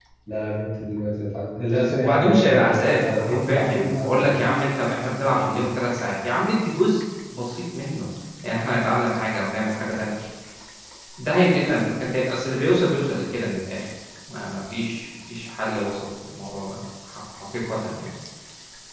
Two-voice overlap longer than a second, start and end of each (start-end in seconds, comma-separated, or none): 2.0-4.4